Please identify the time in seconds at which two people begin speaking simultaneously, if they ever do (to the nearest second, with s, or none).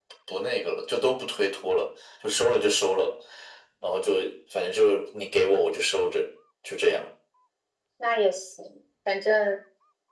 none